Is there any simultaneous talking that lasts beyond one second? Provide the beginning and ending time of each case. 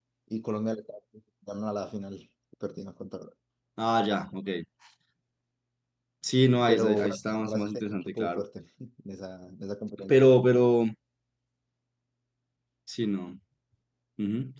6.7-8.4

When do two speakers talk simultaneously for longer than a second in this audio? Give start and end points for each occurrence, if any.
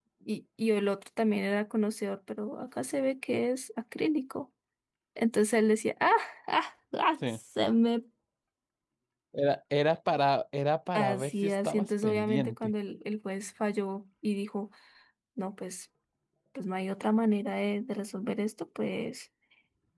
10.9-12.7

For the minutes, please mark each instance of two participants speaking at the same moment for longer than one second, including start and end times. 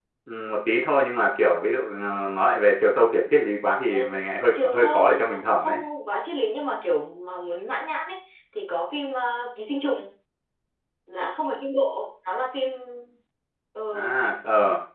4.5-5.8

